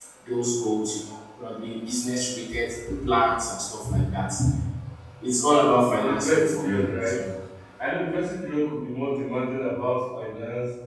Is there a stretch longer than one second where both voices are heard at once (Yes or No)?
Yes